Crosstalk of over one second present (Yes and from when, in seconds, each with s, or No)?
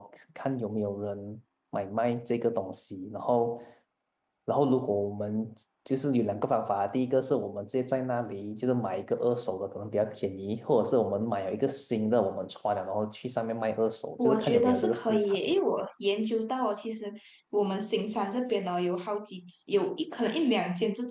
Yes, from 14.2 s